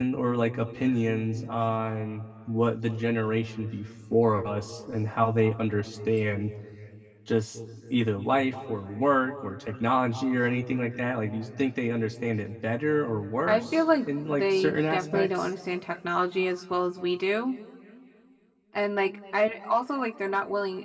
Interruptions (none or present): present